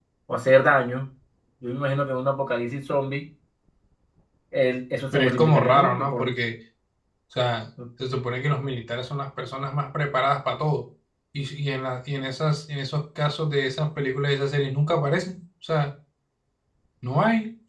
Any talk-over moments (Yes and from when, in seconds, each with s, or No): Yes, from 5.1 s